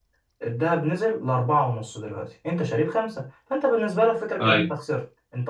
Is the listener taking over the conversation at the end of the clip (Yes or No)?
No